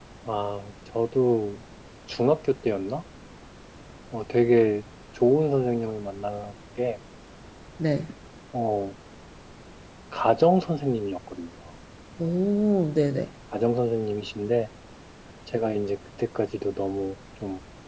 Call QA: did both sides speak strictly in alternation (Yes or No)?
Yes